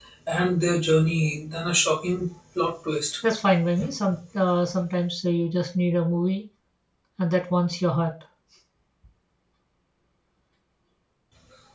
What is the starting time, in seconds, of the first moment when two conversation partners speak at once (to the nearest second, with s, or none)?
none